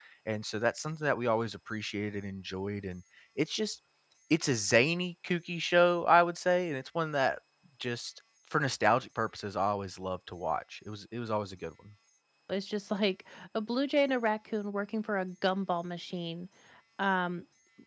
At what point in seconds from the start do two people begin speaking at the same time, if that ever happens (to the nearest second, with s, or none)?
none